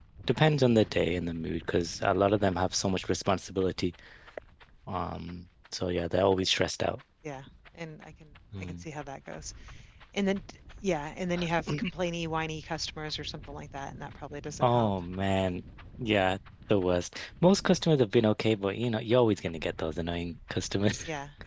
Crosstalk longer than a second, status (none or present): none